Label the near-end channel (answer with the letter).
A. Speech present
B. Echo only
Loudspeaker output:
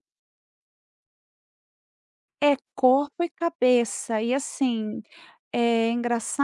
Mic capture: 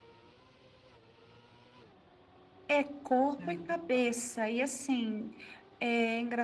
A